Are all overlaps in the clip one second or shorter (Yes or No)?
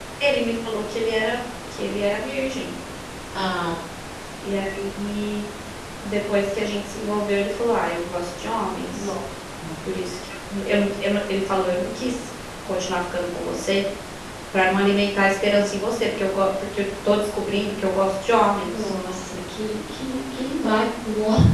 Yes